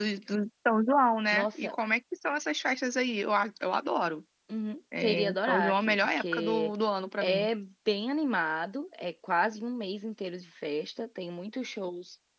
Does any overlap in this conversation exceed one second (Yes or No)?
Yes